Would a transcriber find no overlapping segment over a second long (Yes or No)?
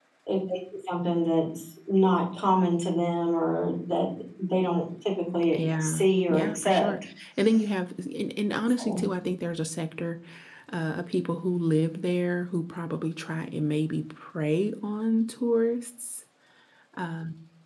No